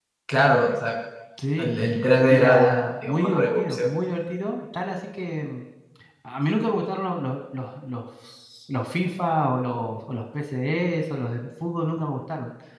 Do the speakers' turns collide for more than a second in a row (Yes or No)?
Yes